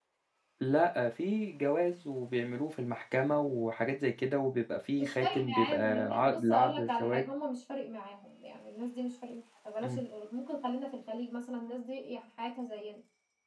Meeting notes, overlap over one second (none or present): present